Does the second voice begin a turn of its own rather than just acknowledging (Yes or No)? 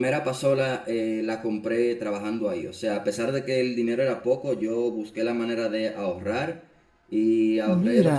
No